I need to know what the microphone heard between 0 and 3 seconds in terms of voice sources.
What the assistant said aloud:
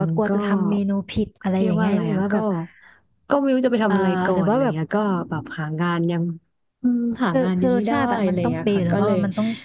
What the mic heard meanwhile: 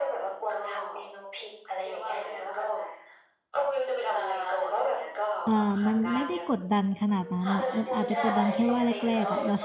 echo only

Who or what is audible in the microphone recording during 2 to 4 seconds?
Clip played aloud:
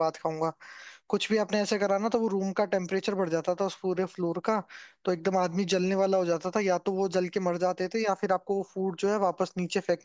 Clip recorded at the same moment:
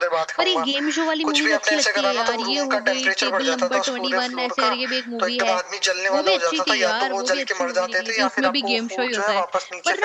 both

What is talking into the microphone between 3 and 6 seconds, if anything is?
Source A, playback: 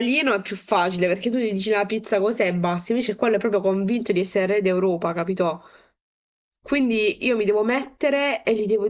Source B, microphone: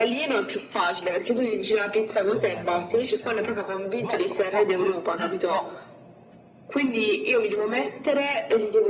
both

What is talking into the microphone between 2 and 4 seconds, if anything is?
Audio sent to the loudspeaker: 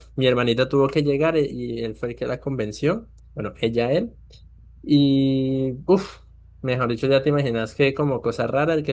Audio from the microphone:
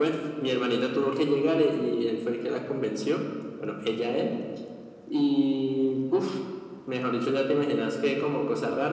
echo only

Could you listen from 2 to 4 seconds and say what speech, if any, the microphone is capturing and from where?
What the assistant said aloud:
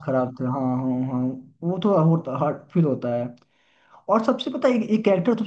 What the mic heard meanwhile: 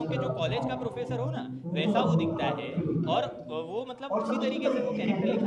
both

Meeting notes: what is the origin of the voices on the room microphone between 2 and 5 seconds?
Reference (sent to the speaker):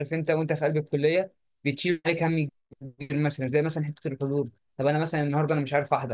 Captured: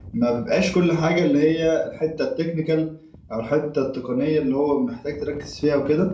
user only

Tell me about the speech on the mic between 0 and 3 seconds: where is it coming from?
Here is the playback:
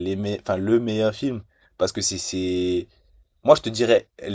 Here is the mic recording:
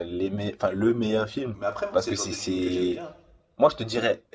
both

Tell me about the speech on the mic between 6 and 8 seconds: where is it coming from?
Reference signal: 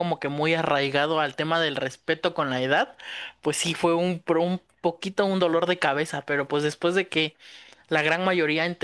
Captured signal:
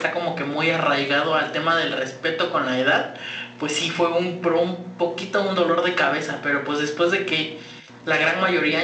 echo only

